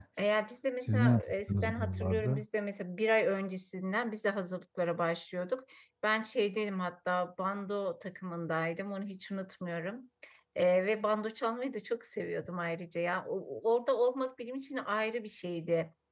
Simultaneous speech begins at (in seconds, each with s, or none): 0.8 s